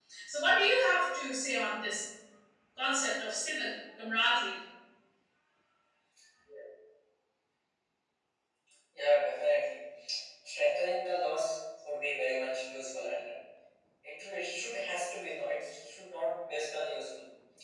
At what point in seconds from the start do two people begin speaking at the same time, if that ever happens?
none

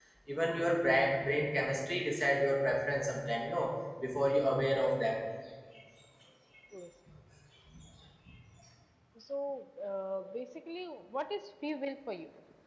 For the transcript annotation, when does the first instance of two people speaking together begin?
none

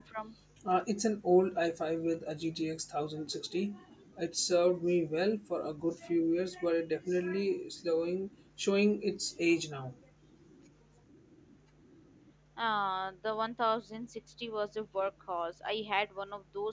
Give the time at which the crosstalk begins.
none

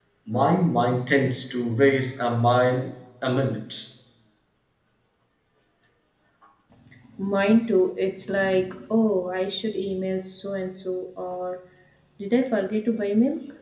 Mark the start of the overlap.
none

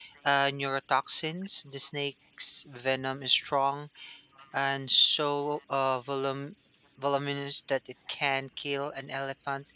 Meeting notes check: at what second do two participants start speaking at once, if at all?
none

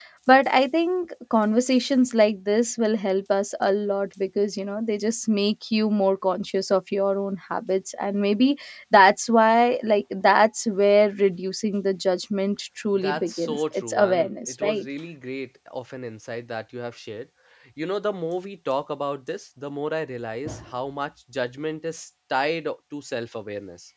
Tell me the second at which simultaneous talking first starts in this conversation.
13 s

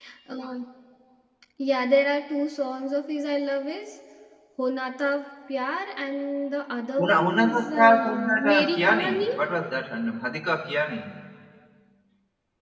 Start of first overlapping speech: 7 s

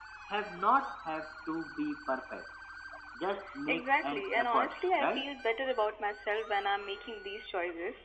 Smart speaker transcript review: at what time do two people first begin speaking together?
4 s

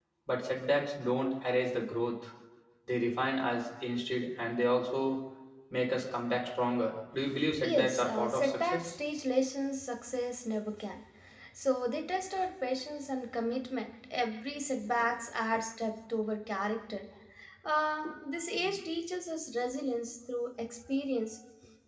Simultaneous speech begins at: 8 s

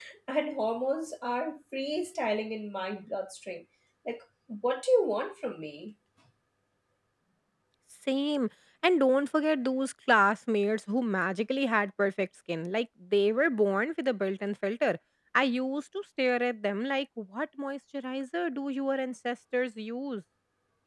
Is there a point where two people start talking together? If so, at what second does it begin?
none

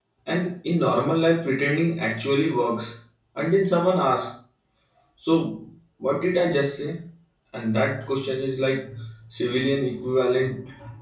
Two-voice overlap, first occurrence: none

